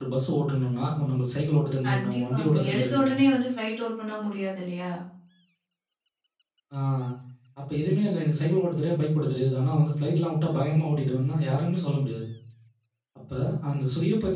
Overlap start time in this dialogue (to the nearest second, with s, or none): 2 s